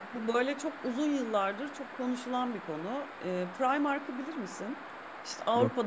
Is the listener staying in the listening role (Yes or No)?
Yes